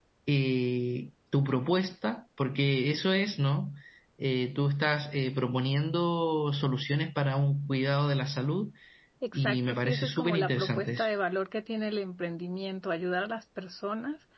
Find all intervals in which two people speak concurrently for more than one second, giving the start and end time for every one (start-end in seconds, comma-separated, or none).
9.3-11.1